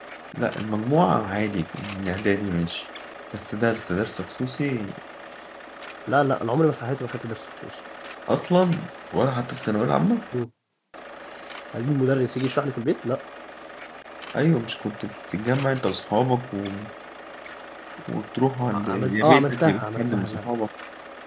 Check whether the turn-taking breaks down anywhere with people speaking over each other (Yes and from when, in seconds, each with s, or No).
Yes, from 18.7 s